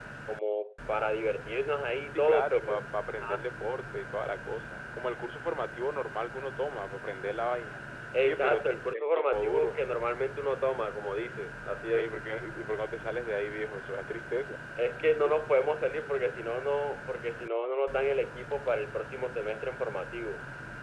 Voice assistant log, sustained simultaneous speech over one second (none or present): present